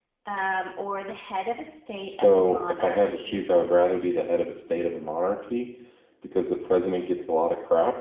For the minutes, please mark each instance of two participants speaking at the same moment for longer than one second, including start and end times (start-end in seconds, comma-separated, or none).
1.9-3.4